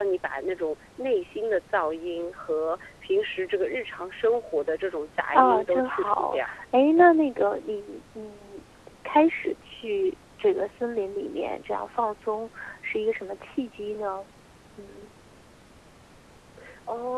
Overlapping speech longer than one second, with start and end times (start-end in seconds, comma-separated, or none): 5.3-6.5